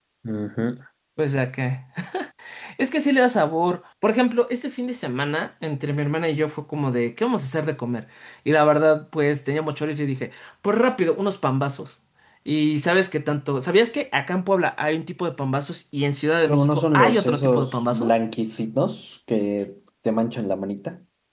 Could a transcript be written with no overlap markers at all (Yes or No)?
No